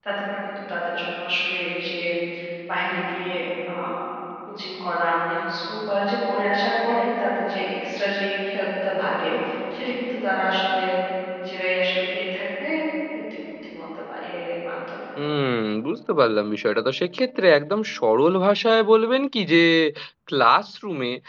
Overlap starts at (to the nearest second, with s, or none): none